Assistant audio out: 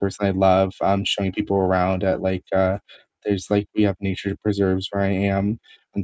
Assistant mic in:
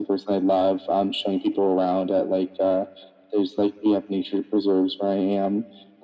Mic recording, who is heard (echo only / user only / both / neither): echo only